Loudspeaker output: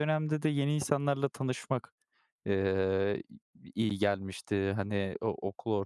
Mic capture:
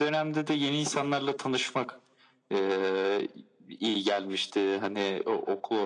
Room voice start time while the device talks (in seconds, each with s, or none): none